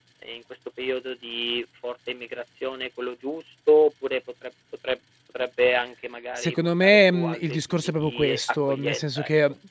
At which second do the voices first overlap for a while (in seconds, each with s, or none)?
6.4 s